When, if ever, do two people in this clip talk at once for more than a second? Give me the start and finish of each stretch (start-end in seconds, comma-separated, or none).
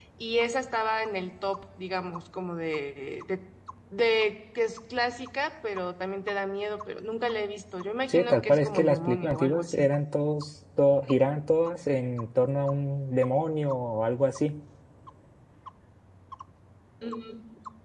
8.1-9.9